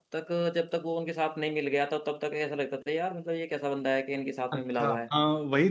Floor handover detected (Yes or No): Yes